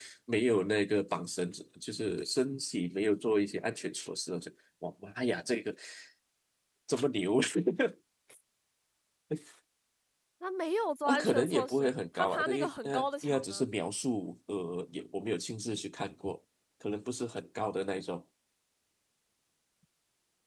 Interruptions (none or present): present